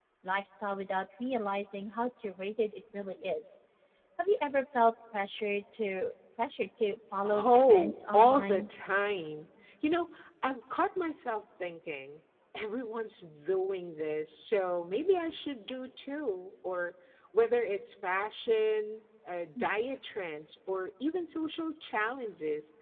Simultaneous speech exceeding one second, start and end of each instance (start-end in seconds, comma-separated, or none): 7.2-8.6